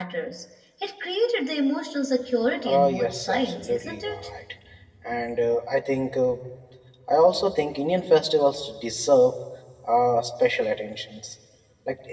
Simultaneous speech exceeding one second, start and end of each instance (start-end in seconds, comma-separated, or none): 2.6-4.3